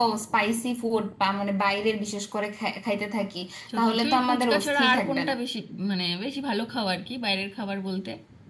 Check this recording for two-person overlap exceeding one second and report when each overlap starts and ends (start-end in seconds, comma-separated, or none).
3.8-5.3